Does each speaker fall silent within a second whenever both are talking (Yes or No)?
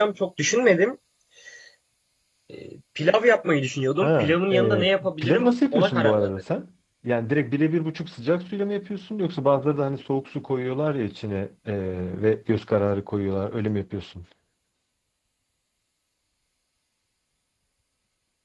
No